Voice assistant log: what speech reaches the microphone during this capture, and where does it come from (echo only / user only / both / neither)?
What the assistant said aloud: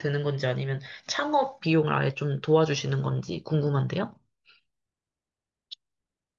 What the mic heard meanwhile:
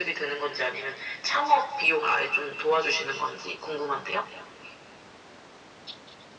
echo only